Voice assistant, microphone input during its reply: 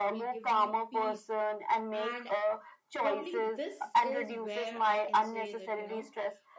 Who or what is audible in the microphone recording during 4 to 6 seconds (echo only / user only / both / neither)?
both